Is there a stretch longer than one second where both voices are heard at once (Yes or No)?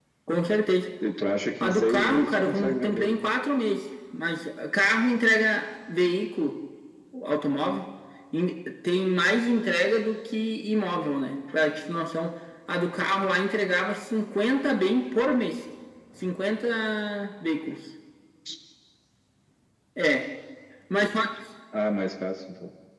Yes